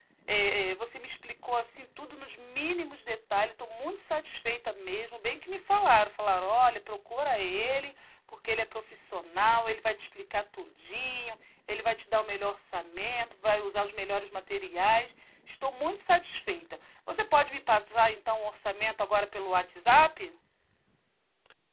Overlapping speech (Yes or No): No